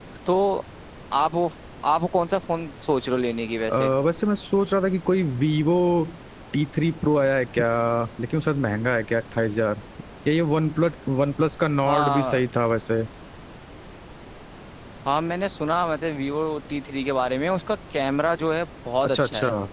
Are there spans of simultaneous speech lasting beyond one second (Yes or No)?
No